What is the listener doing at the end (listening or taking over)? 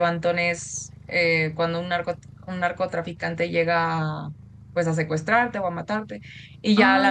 listening